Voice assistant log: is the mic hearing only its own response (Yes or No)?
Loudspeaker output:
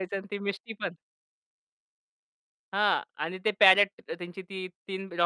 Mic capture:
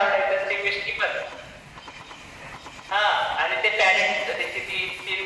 Yes